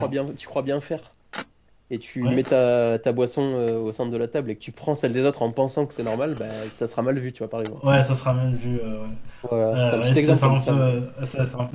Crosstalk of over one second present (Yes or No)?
Yes